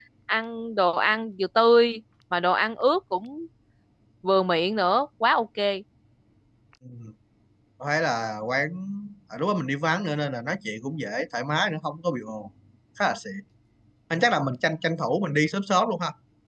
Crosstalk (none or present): none